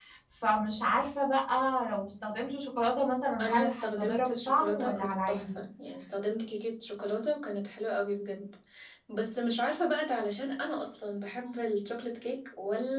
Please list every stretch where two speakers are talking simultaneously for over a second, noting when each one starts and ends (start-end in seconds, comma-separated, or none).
3.4-5.6